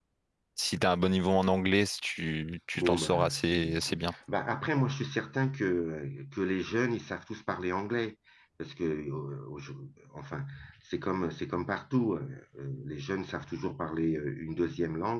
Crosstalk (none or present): present